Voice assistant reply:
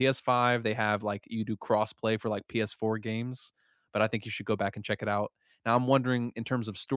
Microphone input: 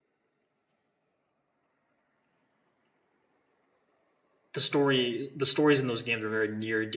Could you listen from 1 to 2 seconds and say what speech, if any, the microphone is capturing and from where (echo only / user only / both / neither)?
neither